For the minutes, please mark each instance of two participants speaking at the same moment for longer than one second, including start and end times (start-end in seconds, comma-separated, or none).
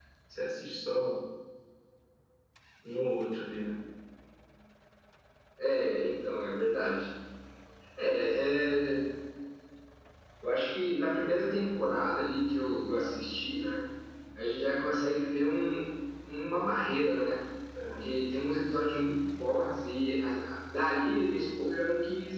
none